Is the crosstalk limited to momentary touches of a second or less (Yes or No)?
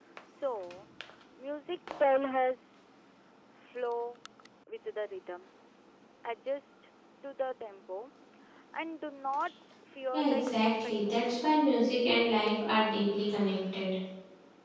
No